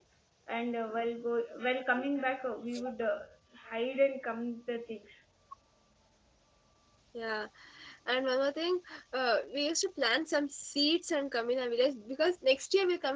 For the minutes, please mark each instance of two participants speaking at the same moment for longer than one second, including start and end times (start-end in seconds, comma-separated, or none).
none